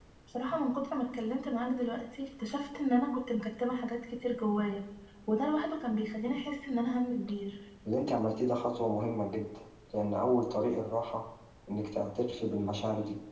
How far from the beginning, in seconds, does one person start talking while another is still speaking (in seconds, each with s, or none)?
none